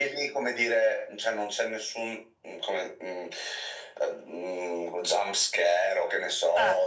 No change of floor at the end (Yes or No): Yes